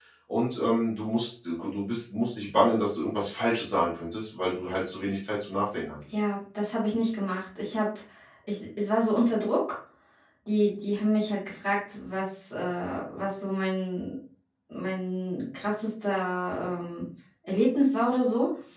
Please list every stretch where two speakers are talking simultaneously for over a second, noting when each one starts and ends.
none

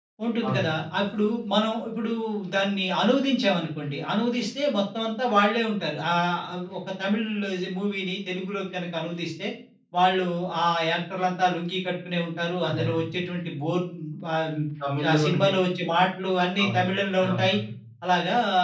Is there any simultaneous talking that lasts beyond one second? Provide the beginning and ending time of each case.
none

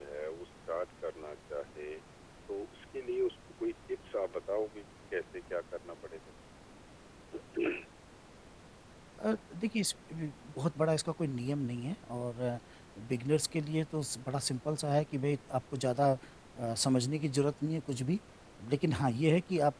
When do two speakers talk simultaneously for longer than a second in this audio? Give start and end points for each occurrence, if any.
none

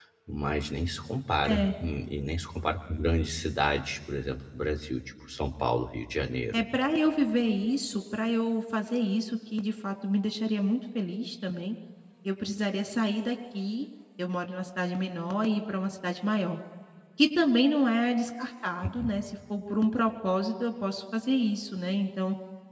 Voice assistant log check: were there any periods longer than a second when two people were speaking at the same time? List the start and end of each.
none

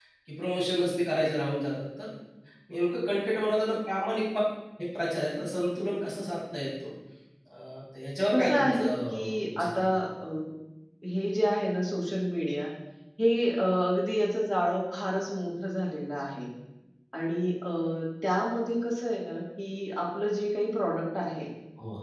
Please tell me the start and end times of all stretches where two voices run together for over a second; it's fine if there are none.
8.3-9.8

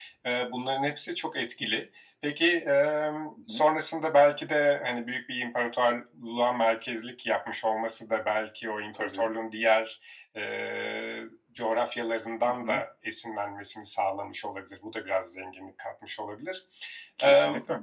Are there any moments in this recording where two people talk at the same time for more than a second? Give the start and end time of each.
none

